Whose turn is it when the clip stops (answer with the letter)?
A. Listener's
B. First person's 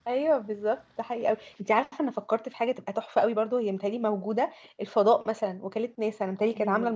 B